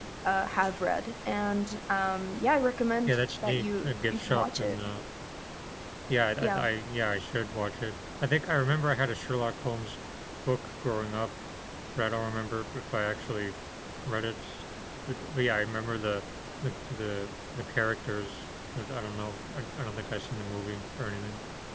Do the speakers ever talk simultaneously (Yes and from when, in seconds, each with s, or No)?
Yes, from 3.1 s